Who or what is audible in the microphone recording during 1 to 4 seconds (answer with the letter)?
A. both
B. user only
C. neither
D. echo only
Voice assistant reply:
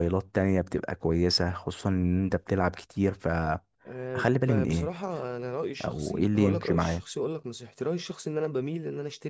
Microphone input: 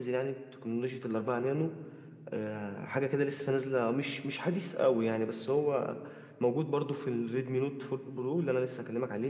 B